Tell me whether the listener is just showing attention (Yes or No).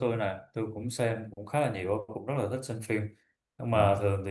Yes